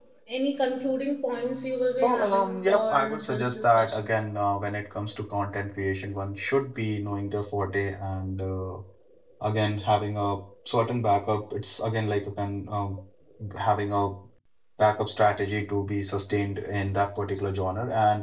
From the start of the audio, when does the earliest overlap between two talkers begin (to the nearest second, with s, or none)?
2 s